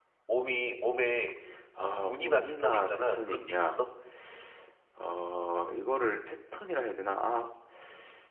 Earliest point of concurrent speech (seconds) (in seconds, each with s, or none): 2.0 s